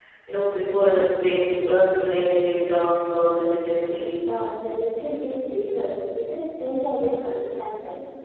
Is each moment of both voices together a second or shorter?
Yes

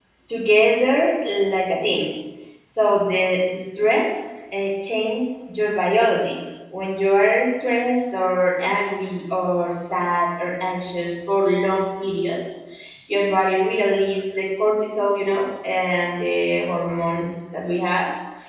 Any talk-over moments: No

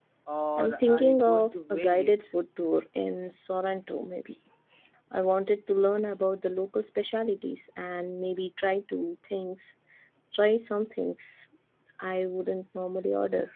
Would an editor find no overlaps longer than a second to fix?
No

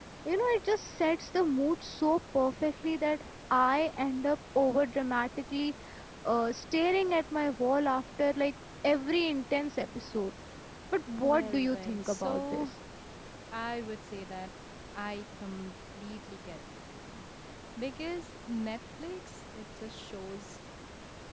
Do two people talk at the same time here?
Yes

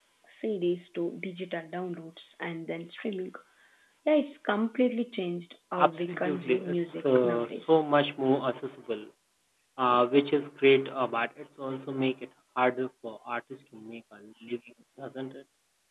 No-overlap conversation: No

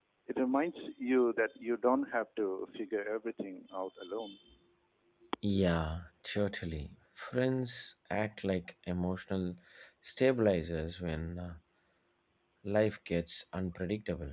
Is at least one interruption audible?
No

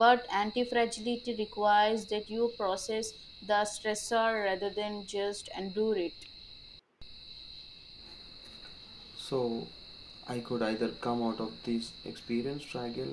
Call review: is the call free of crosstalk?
Yes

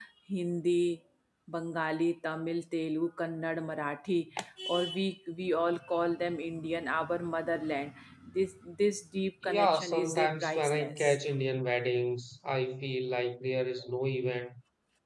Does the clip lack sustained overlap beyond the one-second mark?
No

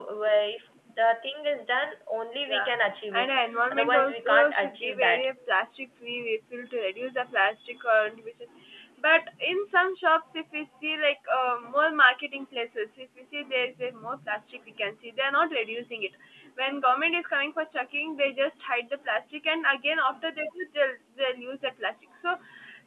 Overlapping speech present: Yes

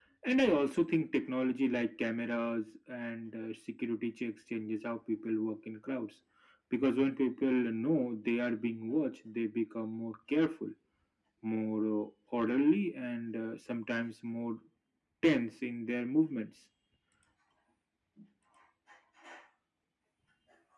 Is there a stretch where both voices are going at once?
No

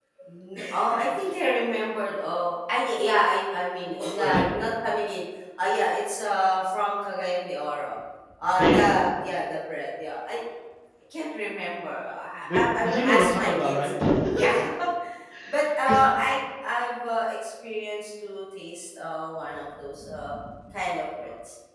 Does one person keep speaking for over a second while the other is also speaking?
Yes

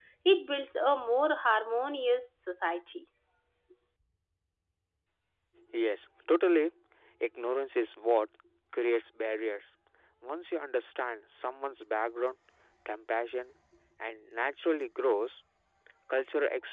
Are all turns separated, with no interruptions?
Yes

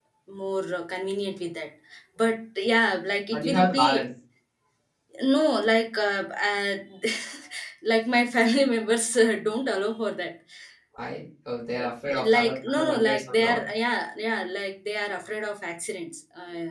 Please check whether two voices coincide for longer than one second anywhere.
Yes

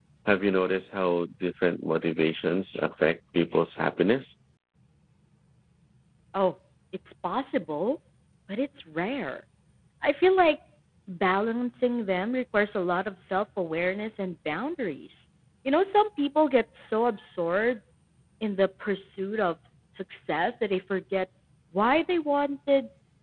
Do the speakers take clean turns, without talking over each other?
Yes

